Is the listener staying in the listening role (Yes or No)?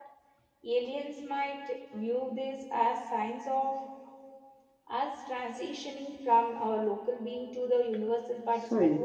No